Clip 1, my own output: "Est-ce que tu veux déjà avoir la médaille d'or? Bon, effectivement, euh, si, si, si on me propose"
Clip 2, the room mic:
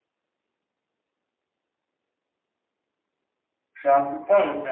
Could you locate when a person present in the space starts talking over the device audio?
3.7 s

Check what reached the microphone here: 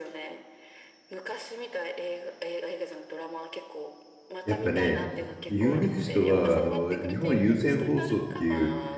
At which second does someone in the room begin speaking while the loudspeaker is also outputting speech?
4.4 s

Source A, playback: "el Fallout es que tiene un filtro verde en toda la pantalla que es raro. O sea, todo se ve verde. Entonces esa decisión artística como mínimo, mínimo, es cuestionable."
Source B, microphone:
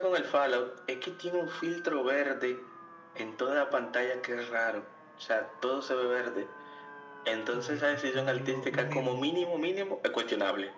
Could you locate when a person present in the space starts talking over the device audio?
7.4 s

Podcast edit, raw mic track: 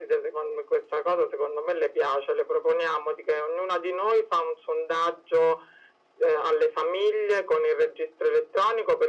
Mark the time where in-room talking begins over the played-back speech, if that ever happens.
none

